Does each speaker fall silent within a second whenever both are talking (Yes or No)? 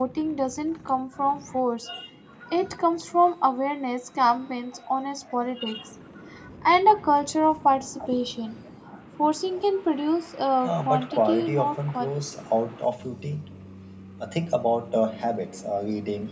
No